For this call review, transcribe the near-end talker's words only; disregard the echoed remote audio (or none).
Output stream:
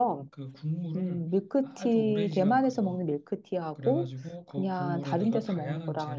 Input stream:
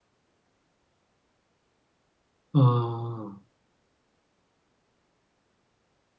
아,